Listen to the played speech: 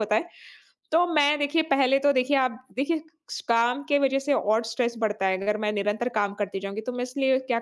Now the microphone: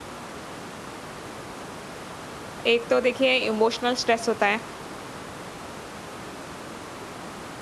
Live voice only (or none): एक तो देखिए इमोशनल स्ट्रेस होता है